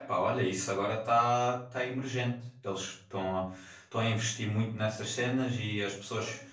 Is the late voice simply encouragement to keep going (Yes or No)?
Yes